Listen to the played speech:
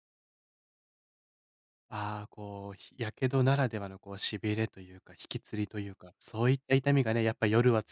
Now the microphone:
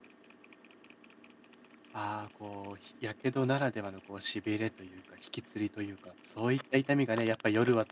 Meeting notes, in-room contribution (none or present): none